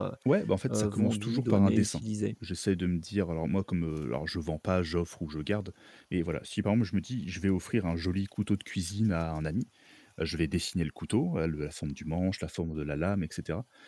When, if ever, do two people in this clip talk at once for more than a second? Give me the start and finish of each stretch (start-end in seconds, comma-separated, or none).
0.7-2.0